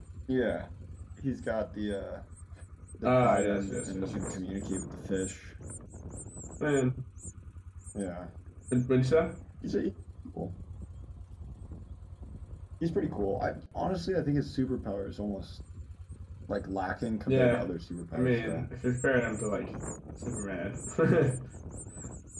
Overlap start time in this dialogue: 3 s

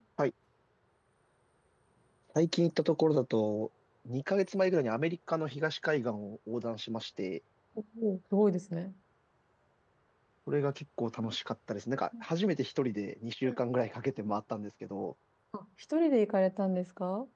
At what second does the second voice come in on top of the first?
none

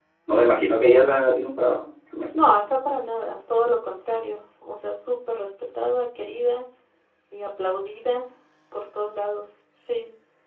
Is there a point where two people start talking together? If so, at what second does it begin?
none

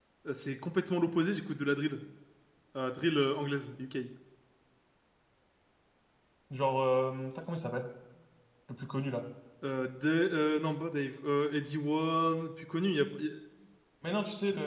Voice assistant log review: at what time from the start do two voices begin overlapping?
none

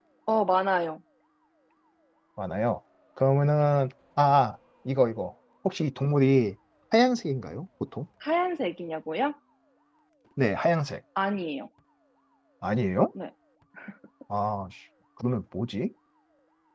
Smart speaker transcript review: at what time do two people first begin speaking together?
none

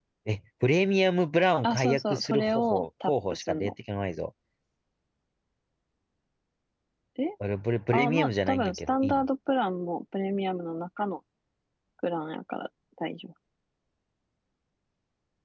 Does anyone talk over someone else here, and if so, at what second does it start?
2 s

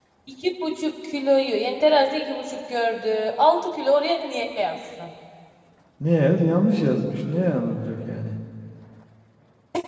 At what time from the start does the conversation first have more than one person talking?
none

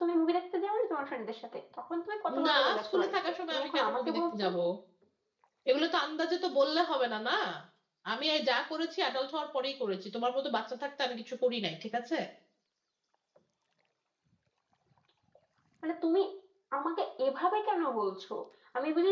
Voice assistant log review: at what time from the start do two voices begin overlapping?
2 s

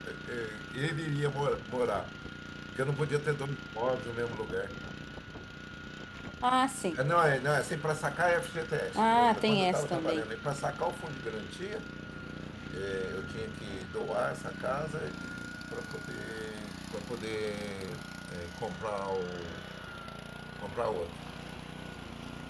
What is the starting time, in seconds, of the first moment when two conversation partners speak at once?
9 s

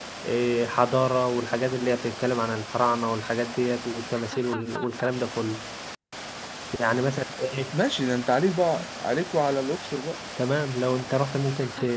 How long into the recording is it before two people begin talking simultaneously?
none

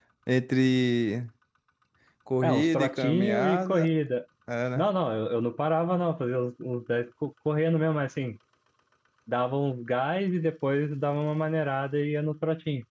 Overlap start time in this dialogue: 2 s

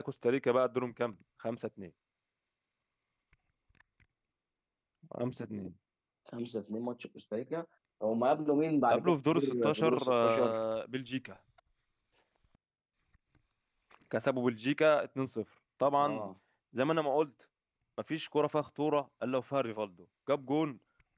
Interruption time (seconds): 9 s

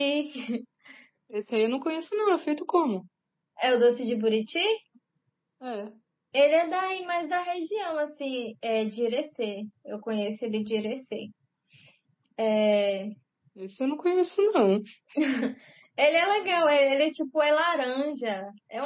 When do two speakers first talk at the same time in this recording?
none

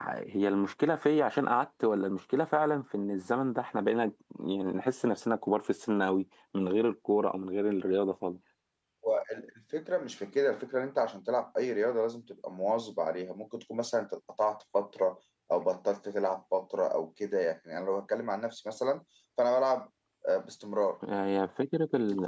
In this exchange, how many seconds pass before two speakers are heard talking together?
none

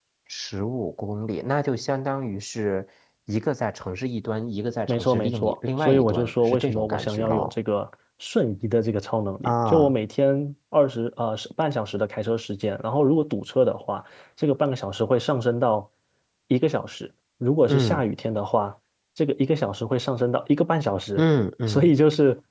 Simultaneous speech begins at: 5 s

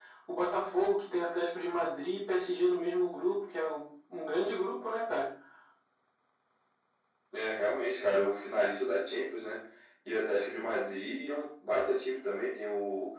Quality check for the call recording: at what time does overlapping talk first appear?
none

